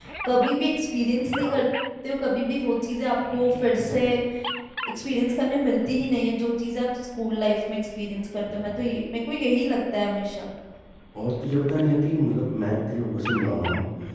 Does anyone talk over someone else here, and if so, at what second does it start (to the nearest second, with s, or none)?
none